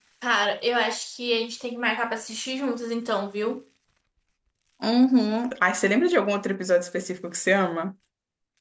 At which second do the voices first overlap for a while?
none

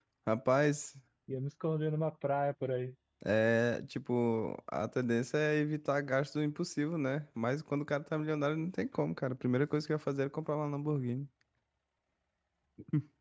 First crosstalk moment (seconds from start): none

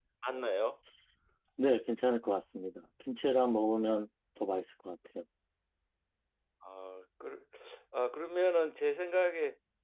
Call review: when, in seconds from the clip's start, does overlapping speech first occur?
none

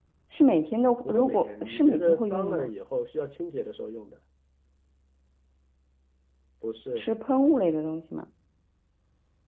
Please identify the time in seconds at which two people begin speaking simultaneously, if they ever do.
1.1 s

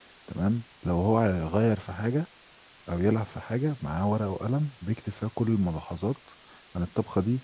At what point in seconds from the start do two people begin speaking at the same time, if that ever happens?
none

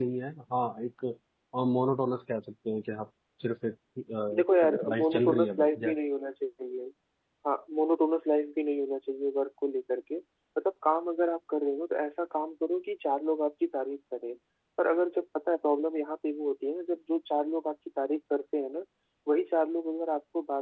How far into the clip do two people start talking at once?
4.6 s

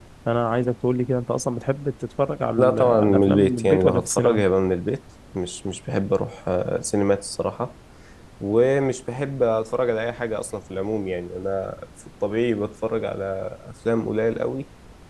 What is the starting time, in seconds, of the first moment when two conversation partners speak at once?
2.6 s

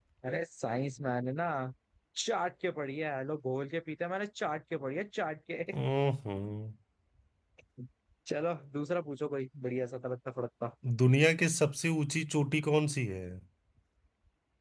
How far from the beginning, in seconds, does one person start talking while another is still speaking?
none

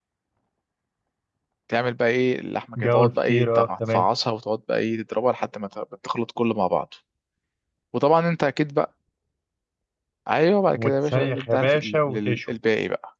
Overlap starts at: 2.8 s

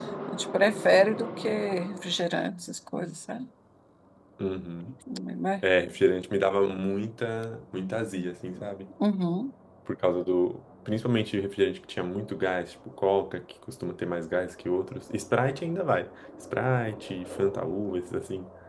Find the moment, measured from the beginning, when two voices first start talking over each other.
none

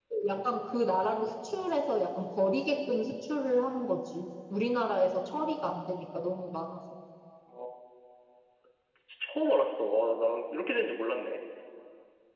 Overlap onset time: none

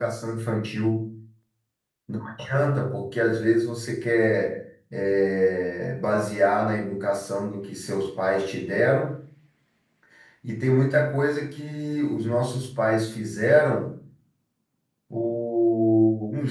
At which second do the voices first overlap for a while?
none

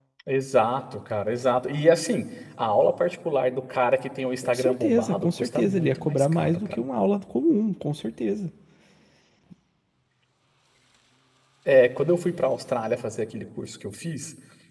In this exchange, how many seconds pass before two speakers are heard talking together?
4.4 s

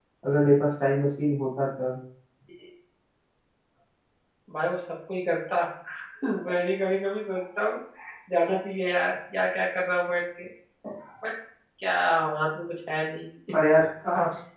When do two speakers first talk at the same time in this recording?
none

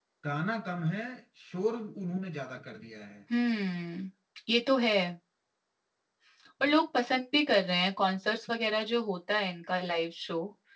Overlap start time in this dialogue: none

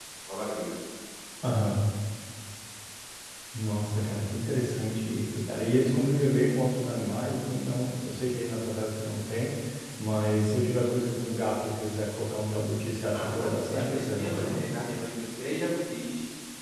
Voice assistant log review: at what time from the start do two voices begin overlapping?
13.1 s

